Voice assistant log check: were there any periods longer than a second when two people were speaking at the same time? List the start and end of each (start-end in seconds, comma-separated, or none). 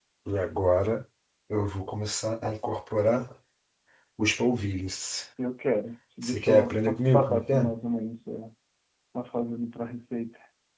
6.2-7.7